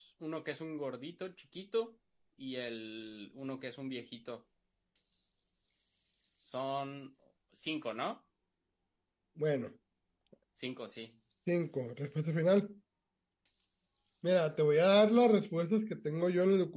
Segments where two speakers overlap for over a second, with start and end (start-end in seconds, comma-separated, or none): none